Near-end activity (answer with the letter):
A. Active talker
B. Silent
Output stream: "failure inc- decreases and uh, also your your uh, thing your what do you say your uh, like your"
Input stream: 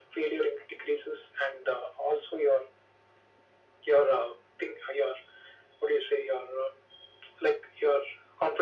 B